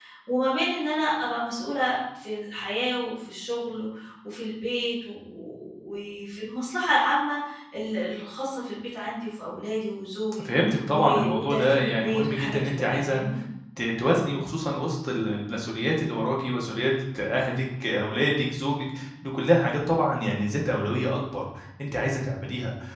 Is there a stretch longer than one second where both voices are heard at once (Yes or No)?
Yes